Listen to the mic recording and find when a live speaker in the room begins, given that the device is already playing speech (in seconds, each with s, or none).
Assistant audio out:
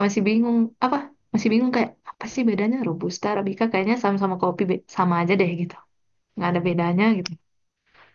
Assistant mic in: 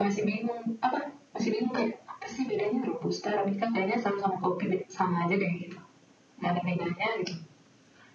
none